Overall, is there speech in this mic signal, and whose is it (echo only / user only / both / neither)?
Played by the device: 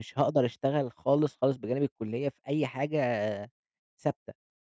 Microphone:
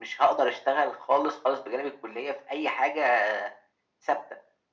echo only